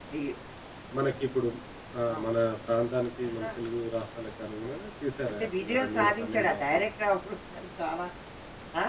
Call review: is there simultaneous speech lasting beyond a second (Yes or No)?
Yes